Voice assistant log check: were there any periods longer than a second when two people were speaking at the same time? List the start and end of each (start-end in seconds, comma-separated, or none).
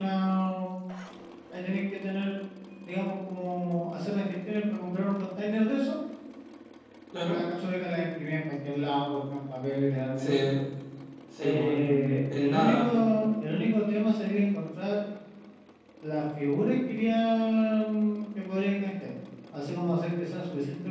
11.4-12.8